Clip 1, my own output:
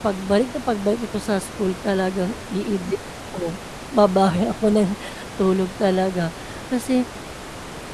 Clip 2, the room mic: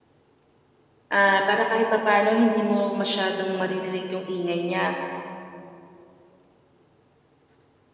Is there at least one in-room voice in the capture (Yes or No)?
Yes